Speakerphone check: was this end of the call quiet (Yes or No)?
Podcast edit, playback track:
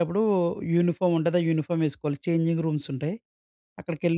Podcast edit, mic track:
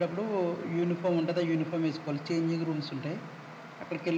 Yes